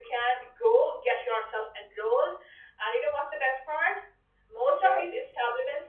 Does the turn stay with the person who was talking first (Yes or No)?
Yes